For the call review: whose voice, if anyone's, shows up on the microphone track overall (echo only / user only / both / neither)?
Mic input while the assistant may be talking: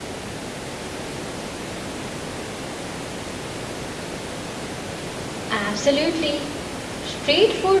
user only